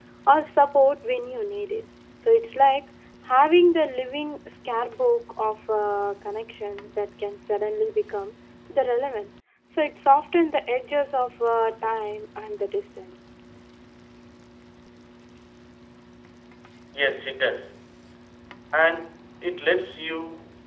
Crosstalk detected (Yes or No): No